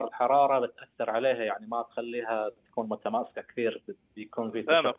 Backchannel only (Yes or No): No